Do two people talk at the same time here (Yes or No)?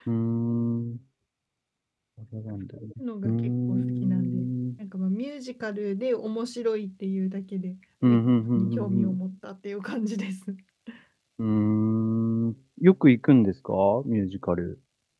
Yes